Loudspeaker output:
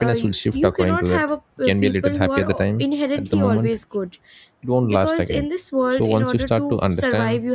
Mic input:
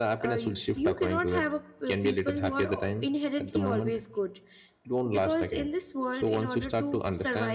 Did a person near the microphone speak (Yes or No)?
No